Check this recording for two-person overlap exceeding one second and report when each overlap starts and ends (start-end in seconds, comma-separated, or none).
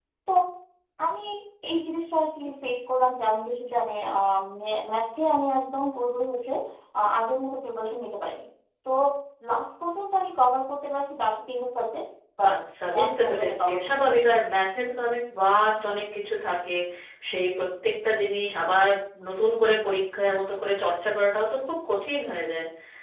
12.9-14.2